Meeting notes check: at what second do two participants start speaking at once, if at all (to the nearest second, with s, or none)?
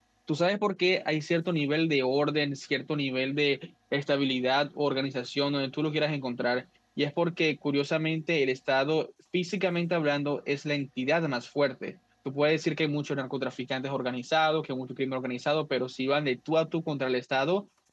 none